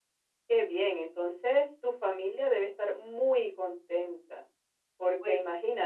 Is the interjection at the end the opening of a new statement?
No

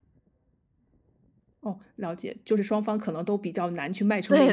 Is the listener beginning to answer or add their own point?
Yes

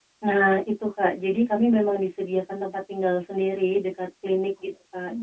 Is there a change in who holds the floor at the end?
No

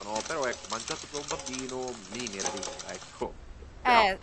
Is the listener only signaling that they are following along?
No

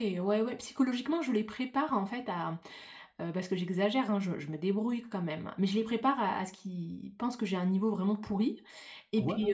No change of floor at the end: Yes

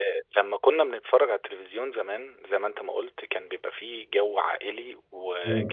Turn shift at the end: No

